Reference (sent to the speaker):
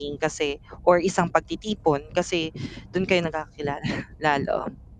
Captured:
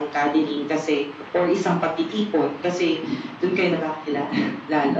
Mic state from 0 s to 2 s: echo only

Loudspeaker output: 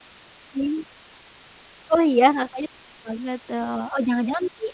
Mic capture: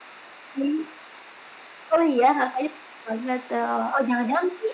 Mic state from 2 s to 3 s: echo only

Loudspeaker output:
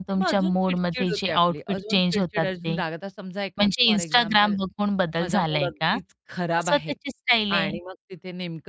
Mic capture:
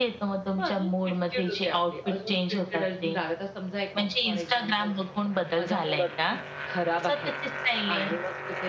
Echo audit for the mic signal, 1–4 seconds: echo only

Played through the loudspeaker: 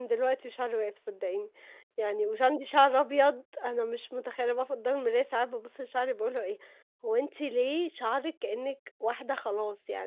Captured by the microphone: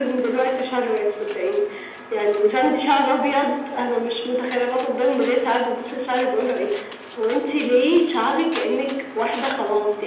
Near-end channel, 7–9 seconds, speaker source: echo only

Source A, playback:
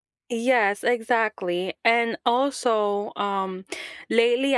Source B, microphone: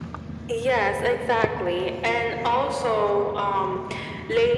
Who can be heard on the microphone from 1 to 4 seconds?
echo only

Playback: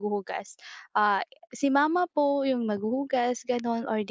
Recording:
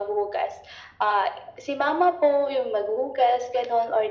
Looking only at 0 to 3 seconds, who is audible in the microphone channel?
echo only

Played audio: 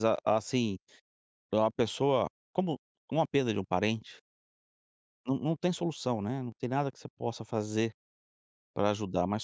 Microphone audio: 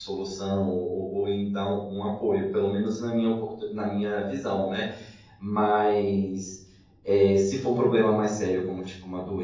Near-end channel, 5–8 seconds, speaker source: user only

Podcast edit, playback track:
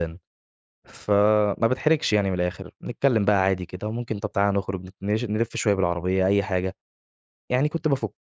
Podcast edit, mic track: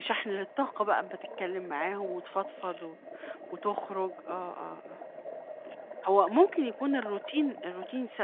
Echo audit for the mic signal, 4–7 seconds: user only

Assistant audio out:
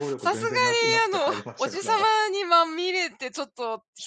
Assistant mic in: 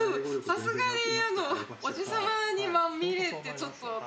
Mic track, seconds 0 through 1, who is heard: echo only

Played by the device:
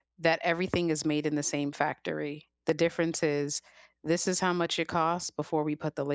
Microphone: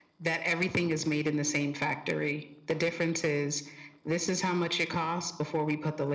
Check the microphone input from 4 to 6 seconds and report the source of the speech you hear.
echo only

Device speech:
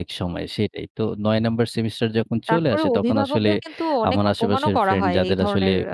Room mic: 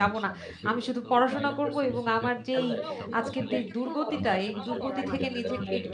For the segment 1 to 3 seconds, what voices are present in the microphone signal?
both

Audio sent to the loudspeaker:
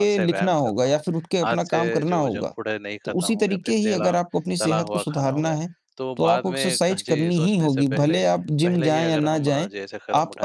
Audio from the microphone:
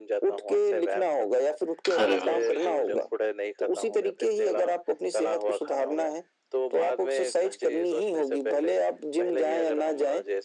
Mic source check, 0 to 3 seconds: both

